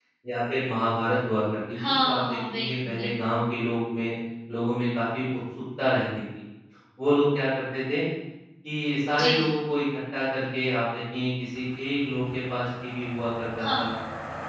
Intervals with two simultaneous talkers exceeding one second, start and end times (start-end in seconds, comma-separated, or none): 2.0-3.4